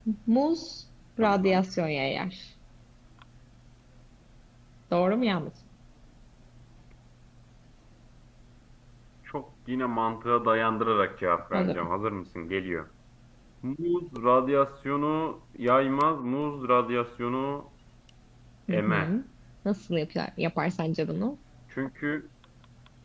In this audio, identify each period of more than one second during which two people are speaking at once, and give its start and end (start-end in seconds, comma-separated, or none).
none